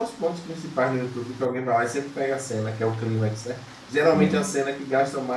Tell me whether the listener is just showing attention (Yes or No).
Yes